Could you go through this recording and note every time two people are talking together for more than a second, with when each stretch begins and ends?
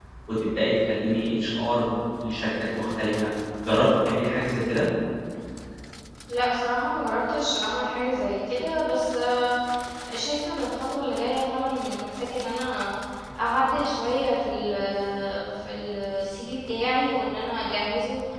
none

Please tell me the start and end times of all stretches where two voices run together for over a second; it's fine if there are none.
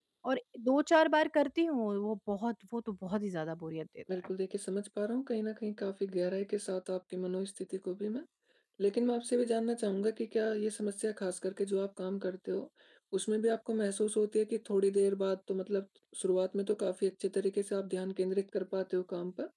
none

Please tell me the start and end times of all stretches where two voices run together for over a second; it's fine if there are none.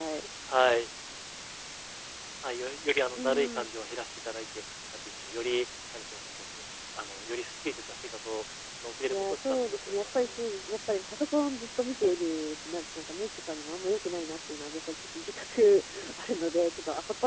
9.1-10.3

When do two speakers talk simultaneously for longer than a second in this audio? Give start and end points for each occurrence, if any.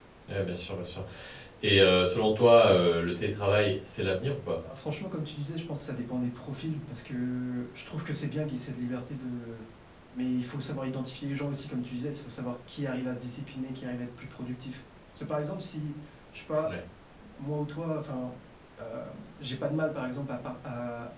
none

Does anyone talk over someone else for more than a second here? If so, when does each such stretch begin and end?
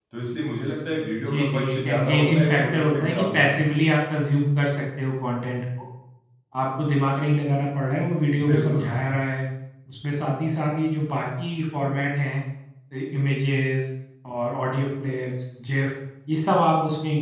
1.3-3.5

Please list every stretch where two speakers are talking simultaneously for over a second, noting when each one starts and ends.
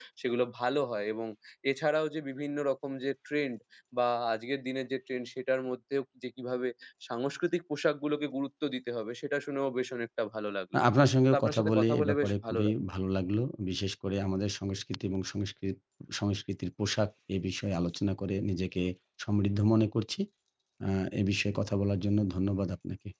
11.3-12.8

